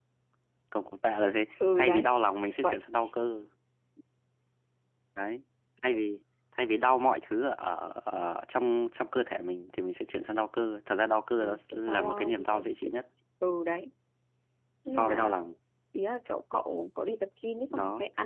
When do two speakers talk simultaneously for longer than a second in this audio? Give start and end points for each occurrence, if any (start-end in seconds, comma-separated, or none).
11.4-12.9